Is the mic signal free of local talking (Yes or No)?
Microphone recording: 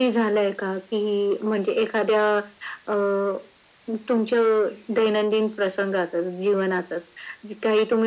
Yes